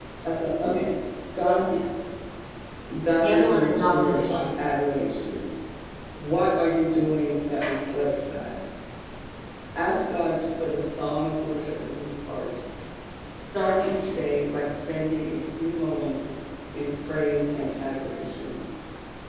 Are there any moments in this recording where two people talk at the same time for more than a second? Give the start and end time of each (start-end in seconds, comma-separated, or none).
3.2-4.5